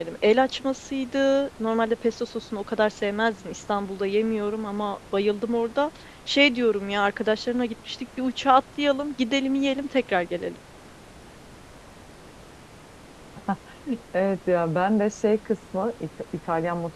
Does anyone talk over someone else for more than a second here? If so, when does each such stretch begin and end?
none

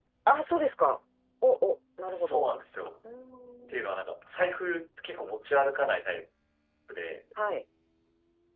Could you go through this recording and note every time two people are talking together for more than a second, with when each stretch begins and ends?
none

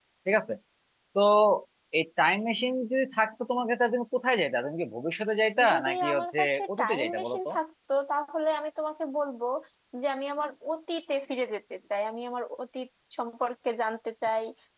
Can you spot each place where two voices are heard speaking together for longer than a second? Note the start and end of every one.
5.7-7.5

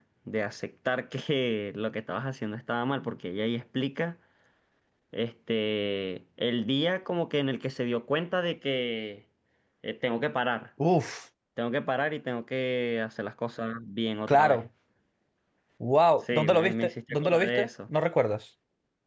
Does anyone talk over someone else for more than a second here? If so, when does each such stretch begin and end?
16.3-17.7

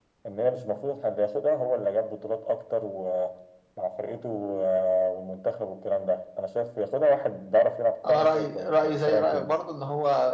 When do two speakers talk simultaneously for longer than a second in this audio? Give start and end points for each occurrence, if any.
8.1-9.5

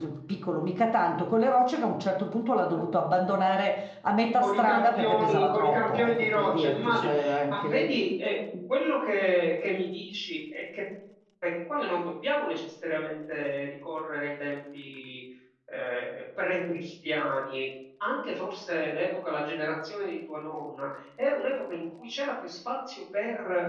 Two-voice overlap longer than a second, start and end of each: 4.4-7.9

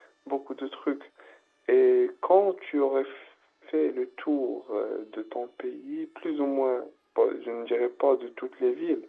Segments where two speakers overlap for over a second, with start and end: none

